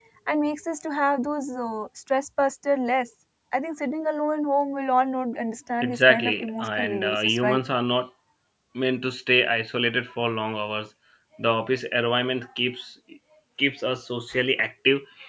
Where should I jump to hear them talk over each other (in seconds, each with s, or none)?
5.8 s